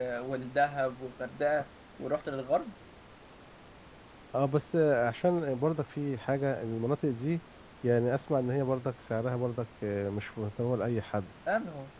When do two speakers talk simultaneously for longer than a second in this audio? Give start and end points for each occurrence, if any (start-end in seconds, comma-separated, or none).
none